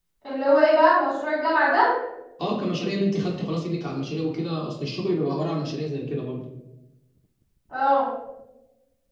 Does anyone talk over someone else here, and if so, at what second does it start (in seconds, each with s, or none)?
none